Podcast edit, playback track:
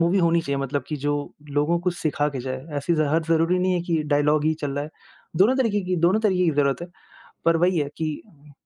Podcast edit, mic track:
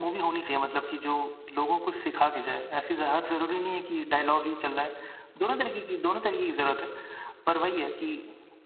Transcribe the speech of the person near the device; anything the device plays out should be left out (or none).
none